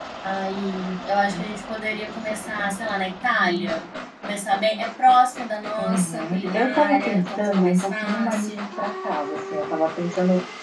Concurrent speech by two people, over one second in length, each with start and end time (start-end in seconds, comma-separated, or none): 5.8-8.5